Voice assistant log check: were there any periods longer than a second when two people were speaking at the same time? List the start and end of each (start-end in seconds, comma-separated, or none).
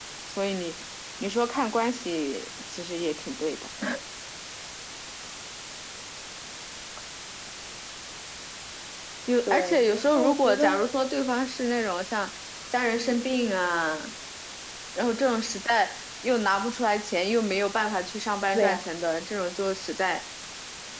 9.5-10.7